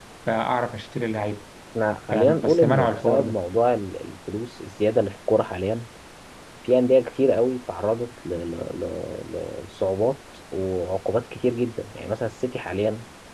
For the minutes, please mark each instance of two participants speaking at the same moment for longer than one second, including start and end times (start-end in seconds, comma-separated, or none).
2.1-3.4